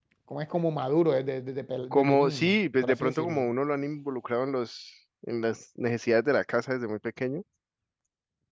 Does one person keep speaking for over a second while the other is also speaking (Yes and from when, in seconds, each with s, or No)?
Yes, from 1.9 s